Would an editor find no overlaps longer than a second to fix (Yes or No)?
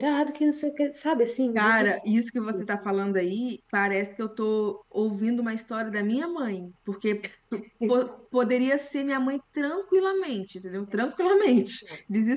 Yes